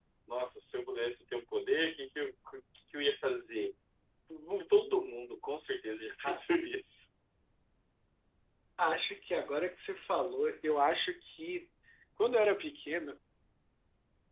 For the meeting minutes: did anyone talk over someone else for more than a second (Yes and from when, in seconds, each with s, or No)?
No